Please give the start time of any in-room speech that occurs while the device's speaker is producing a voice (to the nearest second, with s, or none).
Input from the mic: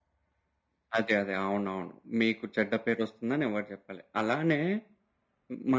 none